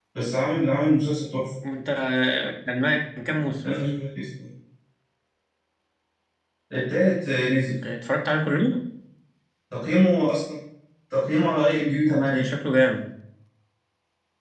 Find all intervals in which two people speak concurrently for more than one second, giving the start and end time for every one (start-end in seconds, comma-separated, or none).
none